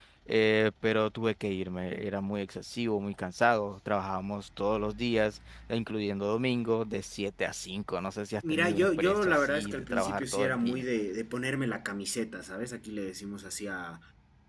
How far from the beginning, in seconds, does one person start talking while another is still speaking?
8.4 s

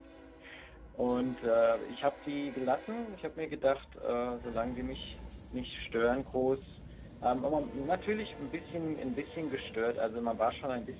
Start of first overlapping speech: none

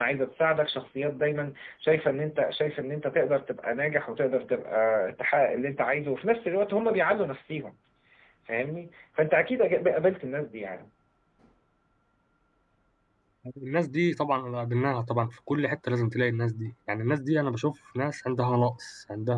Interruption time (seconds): none

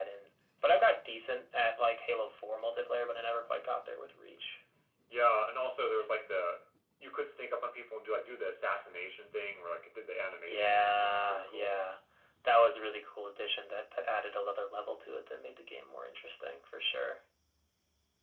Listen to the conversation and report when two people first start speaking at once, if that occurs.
10.5 s

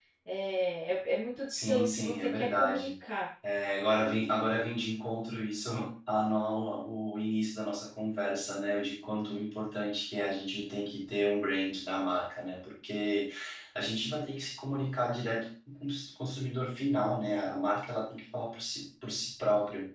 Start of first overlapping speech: 1.5 s

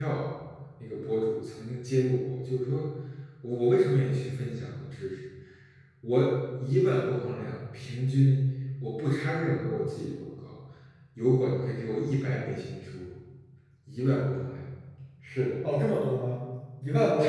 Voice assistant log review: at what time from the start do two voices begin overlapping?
none

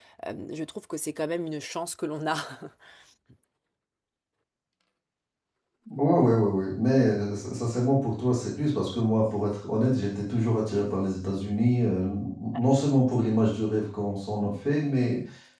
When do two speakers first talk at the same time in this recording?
none

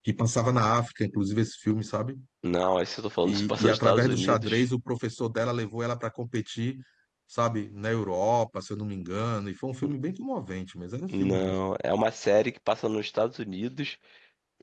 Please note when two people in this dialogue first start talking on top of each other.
3.2 s

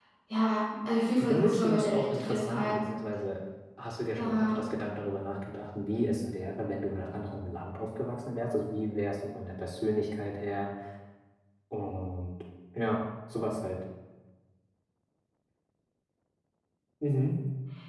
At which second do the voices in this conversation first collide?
1.2 s

